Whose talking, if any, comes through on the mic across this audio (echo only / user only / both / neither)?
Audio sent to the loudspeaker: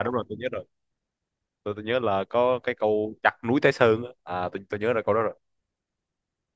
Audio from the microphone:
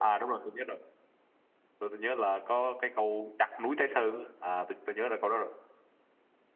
echo only